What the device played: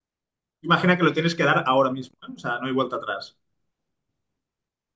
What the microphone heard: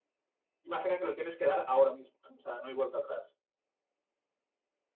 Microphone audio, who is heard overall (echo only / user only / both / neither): echo only